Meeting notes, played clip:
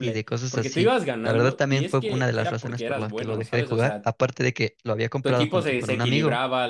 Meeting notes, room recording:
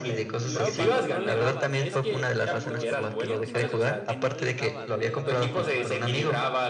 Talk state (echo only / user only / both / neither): both